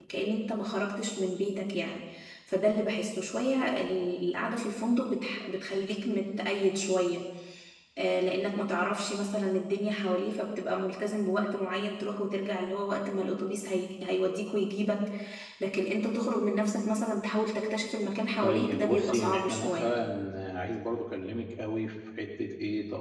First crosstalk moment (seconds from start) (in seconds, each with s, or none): 18.4 s